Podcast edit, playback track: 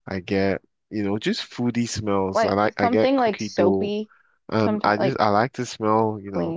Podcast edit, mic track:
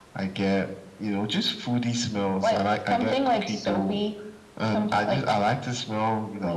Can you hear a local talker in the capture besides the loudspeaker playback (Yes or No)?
No